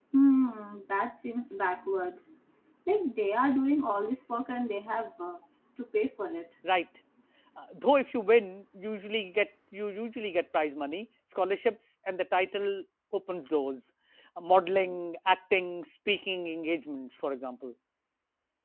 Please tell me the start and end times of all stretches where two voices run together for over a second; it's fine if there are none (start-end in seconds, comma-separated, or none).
none